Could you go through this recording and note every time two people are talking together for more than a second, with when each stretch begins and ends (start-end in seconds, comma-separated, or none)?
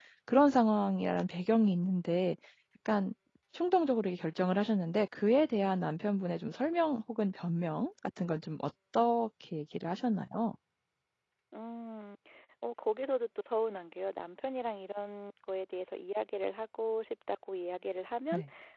none